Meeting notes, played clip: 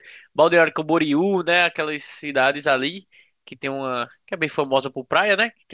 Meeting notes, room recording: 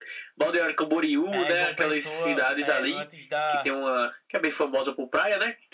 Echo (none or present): present